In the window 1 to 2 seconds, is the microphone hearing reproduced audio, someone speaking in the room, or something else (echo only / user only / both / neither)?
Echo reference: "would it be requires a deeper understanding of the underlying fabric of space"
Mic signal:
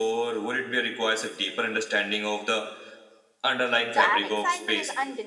echo only